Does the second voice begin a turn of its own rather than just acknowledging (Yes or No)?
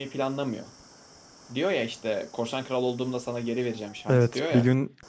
Yes